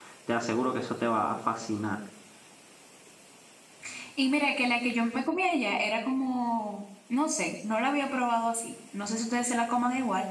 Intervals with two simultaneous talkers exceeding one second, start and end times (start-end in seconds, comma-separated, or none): none